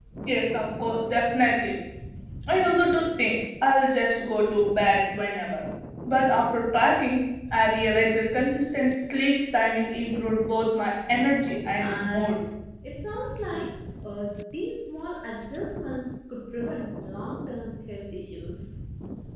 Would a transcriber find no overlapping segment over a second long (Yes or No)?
Yes